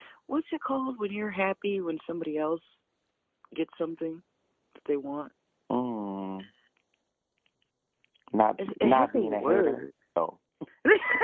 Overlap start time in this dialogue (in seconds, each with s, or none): 8.7 s